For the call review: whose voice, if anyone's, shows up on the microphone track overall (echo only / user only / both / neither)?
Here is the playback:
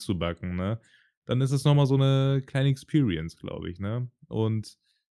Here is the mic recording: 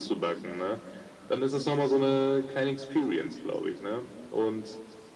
echo only